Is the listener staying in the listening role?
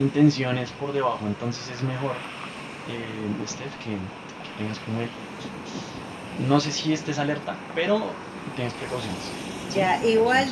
No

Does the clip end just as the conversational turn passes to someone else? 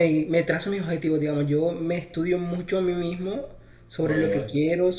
No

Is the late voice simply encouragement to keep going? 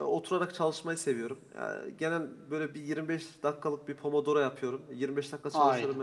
Yes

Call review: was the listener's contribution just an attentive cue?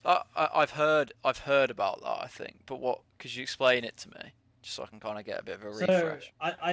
No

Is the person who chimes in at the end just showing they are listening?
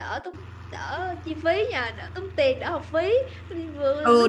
No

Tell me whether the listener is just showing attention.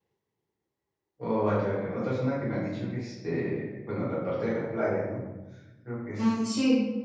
No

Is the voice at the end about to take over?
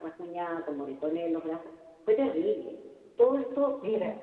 No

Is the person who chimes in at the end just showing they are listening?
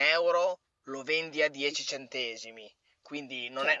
Yes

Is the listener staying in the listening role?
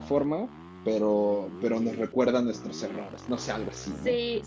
No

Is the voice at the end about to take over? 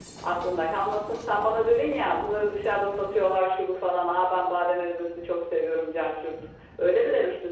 Yes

